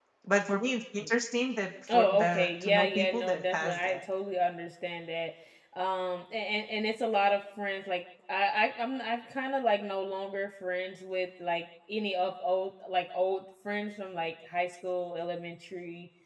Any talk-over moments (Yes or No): Yes